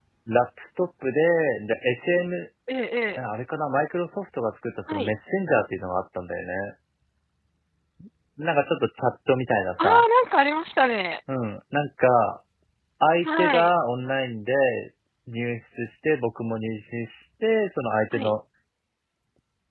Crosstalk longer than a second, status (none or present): none